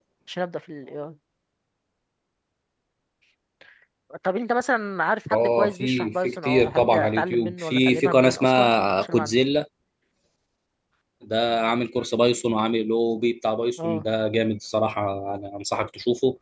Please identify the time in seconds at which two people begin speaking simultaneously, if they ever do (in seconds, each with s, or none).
5.3 s